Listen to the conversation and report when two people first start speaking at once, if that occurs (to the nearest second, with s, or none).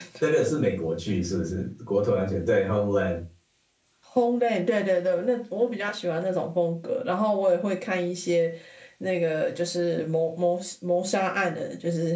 none